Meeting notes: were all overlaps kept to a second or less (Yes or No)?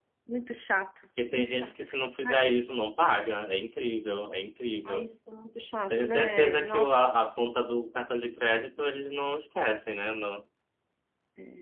No